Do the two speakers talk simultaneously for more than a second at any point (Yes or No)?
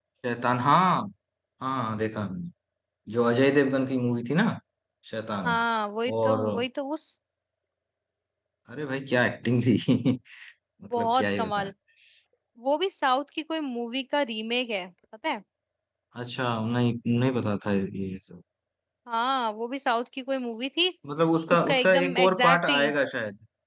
Yes